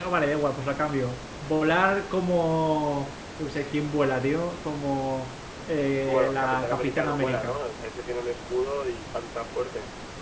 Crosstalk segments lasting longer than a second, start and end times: 6.1-7.6

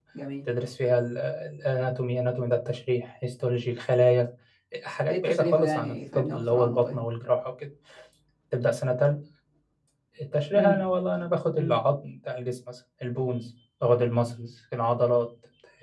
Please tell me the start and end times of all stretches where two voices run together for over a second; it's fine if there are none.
5.1-7.0

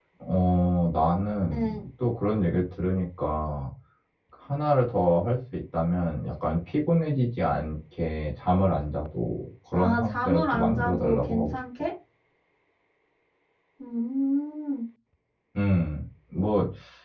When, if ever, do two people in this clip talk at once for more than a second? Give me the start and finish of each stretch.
9.7-11.6

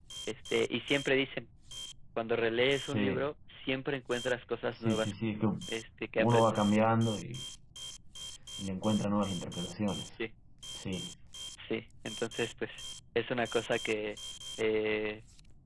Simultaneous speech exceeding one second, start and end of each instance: none

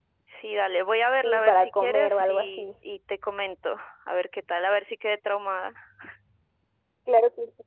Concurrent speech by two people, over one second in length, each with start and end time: 1.2-2.6

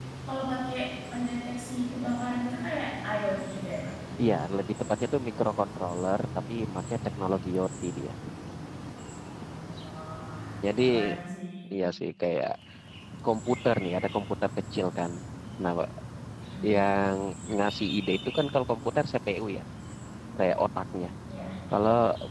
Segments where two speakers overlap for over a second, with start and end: none

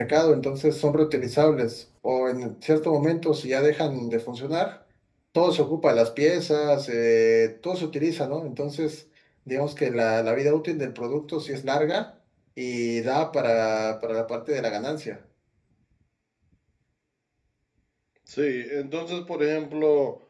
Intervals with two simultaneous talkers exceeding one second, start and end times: none

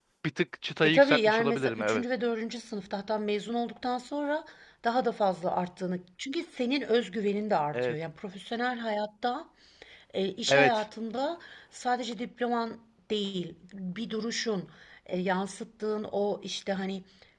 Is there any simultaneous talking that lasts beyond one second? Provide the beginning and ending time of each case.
0.8-2.0

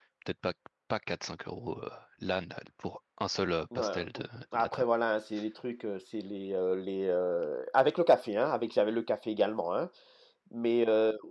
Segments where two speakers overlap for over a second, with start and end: none

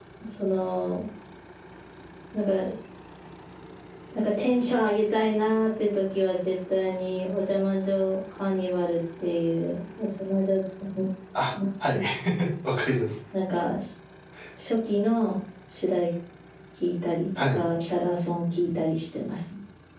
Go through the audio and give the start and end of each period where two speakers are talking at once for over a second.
none

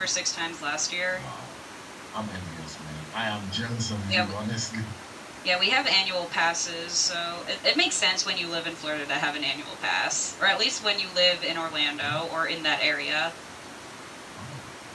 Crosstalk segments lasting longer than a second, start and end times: none

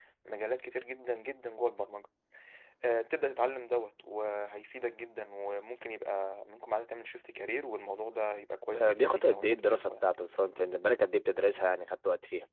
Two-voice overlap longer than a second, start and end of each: 8.7-10.1

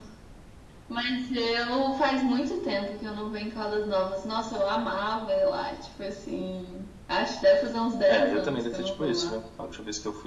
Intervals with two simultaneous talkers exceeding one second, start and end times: 8.1-9.4

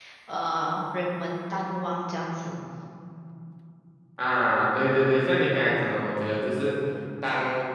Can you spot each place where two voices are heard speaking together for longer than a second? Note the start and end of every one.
none

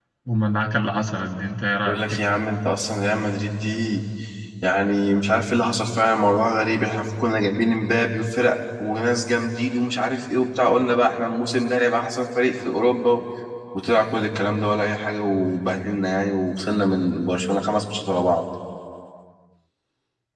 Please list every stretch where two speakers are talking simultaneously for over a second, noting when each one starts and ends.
none

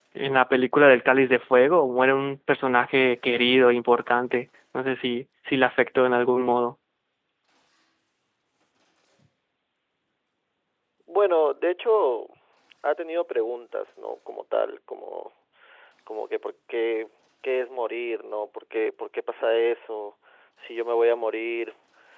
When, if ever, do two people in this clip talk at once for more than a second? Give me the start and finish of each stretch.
none

